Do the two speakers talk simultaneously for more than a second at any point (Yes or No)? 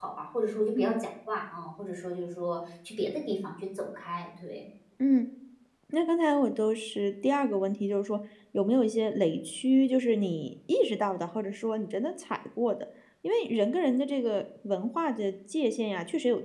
No